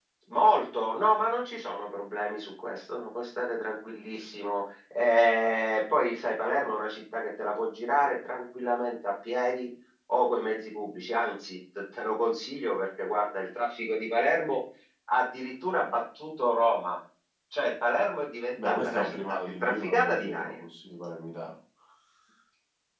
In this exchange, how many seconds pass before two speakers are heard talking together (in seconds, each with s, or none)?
18.6 s